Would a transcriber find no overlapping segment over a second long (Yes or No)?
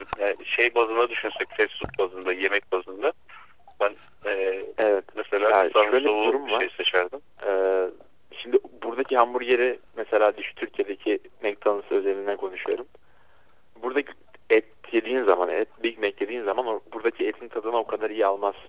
No